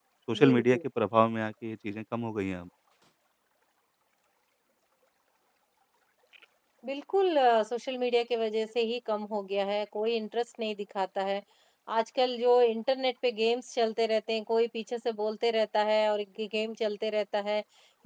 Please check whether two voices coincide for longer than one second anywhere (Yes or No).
No